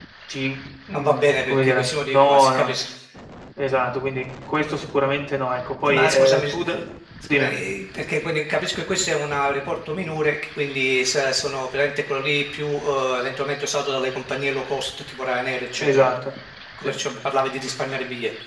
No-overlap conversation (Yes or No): No